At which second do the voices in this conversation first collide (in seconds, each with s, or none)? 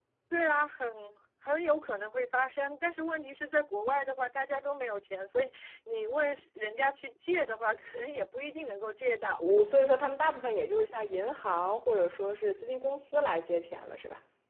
none